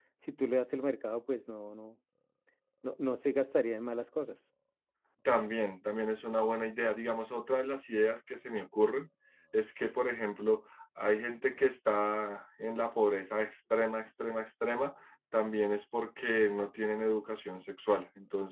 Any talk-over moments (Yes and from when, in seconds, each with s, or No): No